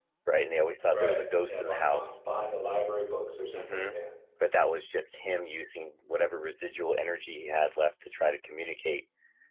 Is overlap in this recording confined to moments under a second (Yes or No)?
No